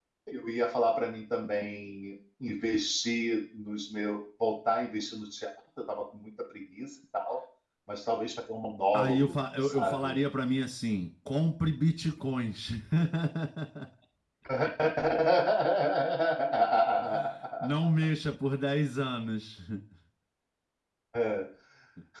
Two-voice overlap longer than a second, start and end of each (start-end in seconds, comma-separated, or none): 8.9-10.2